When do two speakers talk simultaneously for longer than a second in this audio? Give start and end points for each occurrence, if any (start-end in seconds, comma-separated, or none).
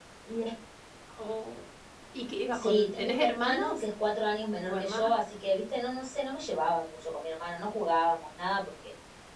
2.5-3.8